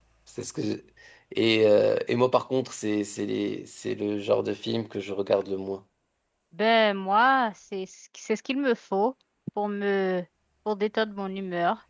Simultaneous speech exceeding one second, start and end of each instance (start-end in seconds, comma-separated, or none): none